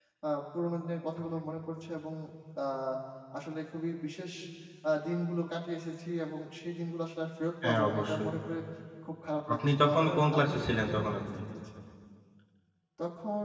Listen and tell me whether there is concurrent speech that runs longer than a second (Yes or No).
Yes